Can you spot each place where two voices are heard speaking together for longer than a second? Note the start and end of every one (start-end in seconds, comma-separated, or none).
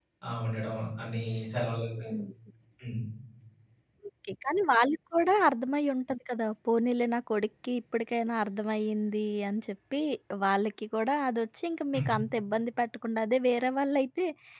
none